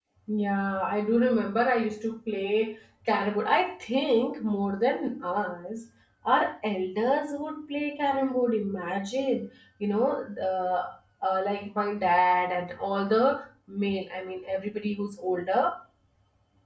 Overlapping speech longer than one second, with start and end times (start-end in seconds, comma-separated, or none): none